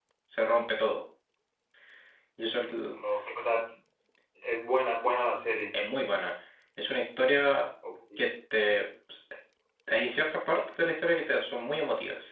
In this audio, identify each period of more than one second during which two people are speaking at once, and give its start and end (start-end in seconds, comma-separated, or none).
none